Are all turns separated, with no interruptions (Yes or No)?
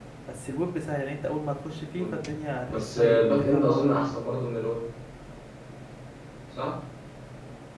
No